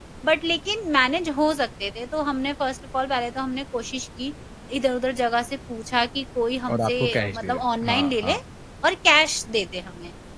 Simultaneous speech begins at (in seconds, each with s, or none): 6.7 s